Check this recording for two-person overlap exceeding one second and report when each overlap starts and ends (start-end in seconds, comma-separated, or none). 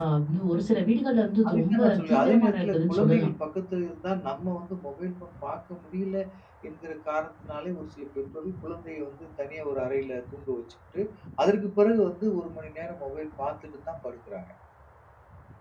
1.5-3.3